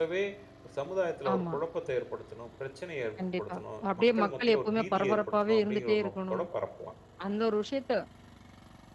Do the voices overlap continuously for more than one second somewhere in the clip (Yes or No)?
Yes